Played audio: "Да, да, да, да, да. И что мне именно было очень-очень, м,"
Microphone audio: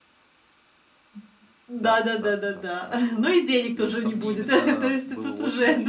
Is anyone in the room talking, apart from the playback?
Yes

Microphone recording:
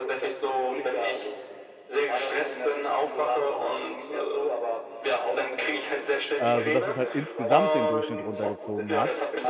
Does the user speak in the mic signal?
Yes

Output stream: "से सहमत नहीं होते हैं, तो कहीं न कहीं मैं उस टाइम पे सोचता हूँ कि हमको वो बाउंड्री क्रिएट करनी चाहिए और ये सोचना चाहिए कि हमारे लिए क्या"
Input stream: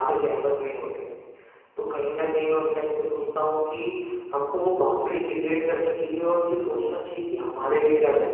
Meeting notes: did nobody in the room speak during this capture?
Yes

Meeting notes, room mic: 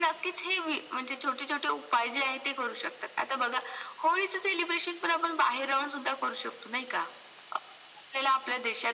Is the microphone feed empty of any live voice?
Yes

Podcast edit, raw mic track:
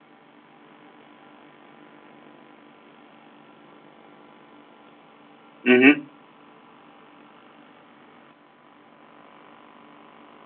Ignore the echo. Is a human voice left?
Yes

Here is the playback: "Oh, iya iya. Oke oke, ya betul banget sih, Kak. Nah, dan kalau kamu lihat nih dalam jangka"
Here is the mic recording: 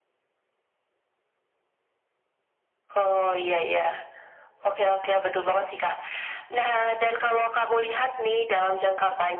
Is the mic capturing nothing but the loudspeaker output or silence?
Yes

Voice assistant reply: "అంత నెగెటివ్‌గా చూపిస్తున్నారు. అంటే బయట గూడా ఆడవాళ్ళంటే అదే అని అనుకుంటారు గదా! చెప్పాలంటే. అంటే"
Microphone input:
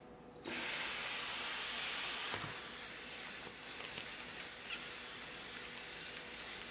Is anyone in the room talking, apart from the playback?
No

